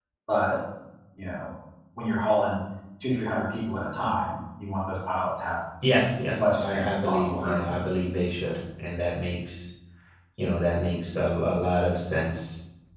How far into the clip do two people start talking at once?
6.3 s

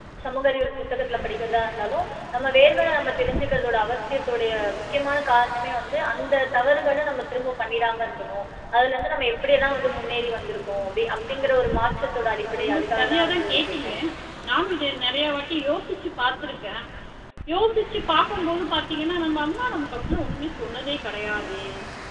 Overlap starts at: 12.5 s

